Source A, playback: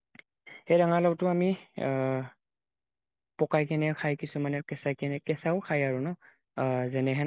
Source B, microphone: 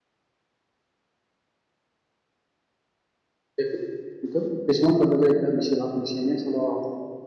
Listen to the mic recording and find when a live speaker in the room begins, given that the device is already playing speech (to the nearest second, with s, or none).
4 s